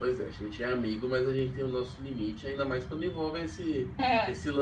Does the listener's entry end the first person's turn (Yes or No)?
No